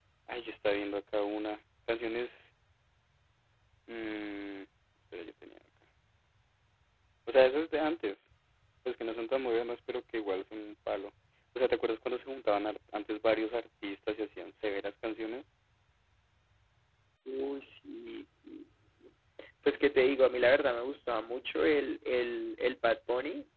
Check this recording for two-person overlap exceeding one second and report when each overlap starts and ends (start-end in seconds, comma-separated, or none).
none